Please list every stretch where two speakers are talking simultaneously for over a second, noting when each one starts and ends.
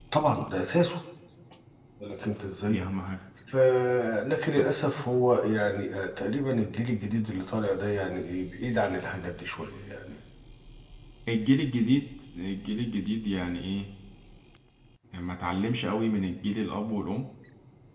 none

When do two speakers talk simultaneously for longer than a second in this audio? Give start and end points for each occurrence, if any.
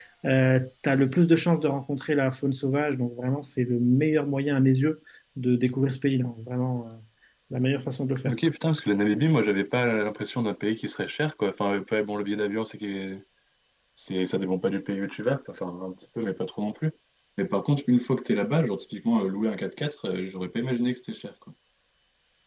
none

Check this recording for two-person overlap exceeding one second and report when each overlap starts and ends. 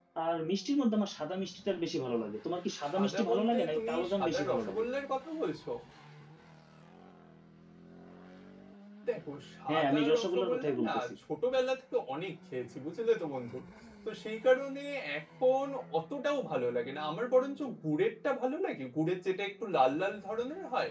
2.9-4.8, 9.7-11.0

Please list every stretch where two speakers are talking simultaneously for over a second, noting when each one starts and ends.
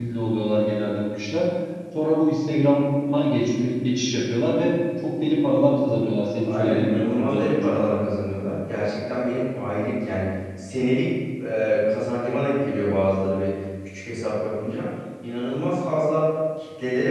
6.4-7.8

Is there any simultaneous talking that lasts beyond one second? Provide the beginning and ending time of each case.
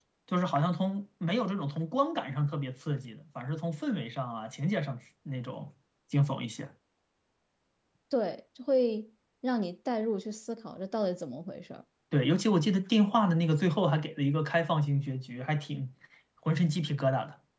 none

